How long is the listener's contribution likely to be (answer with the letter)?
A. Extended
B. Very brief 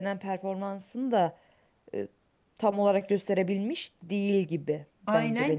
A